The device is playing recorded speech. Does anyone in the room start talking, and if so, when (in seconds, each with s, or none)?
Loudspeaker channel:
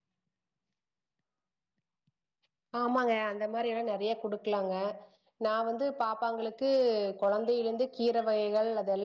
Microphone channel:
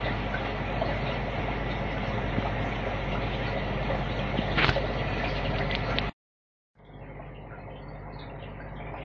none